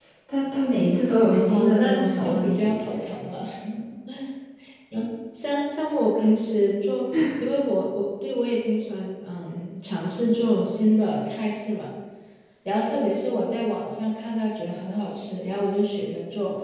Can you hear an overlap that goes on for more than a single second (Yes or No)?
Yes